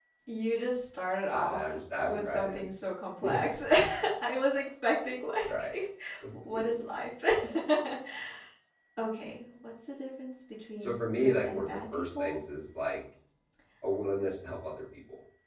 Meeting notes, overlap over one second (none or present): present